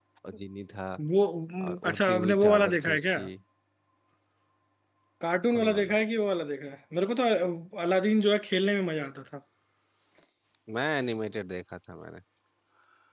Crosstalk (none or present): present